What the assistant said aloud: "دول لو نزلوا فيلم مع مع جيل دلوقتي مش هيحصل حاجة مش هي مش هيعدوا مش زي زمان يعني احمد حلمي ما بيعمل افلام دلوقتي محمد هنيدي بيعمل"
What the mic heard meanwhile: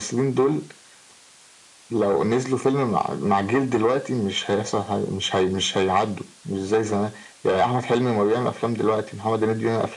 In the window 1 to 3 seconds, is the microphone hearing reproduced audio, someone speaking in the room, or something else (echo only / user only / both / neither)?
echo only